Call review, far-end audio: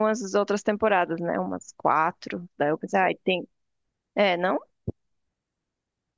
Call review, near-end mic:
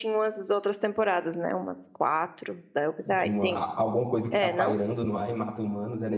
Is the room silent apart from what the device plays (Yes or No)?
No